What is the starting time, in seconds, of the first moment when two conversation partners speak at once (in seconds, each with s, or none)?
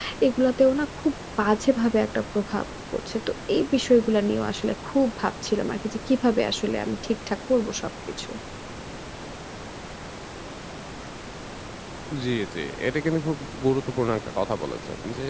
none